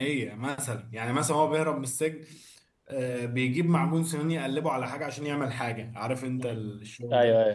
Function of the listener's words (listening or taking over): taking over